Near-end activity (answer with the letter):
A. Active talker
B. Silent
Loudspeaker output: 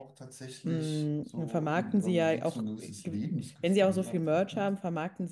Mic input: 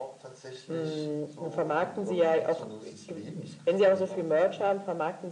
B